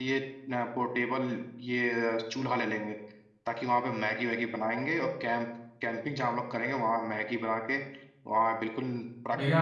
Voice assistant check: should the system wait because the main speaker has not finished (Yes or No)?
No